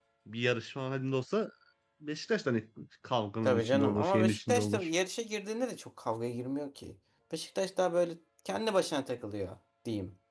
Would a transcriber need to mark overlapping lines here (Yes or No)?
Yes